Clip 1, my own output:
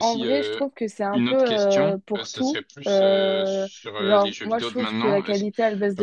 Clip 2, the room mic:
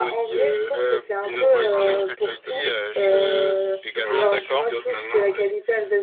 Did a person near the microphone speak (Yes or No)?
Yes